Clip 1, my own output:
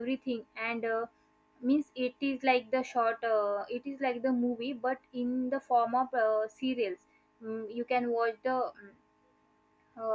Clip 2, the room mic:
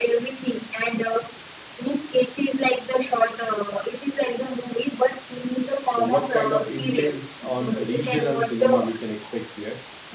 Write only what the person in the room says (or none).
So, what kind of influence on regional cinema we can expect here?